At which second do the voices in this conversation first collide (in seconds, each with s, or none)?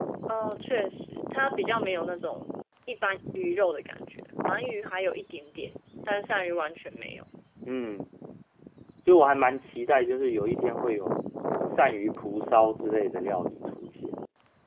none